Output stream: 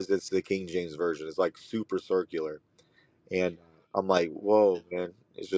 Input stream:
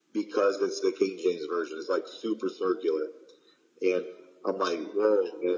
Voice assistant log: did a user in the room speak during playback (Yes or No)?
No